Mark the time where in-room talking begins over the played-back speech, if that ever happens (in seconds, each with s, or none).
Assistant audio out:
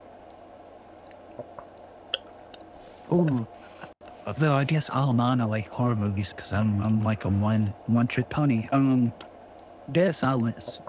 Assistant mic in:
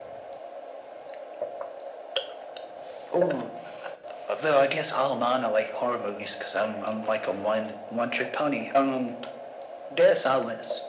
none